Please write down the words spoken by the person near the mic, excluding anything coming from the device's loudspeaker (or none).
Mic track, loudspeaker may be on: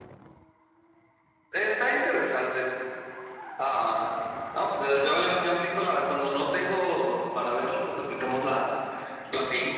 none